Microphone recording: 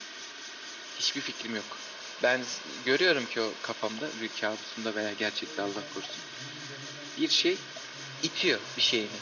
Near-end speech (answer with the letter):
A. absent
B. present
B